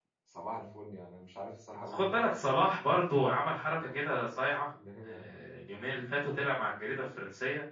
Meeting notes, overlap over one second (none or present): none